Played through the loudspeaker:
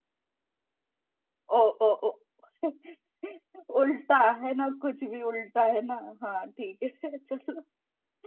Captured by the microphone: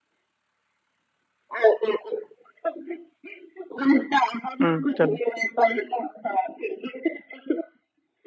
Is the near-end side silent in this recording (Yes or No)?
No